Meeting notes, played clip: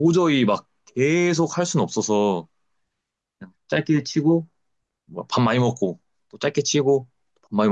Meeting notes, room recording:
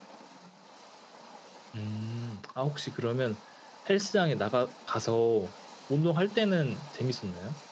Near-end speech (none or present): present